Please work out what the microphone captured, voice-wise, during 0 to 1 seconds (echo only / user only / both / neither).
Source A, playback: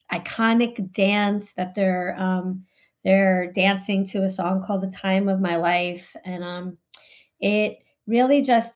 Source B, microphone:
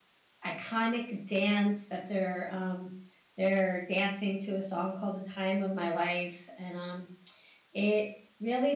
echo only